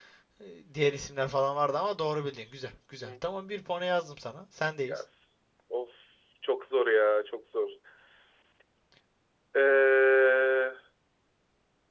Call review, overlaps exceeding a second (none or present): none